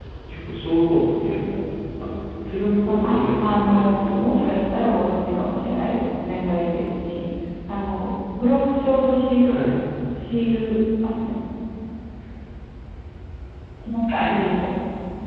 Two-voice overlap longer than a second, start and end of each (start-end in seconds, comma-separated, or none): 2.9-4.8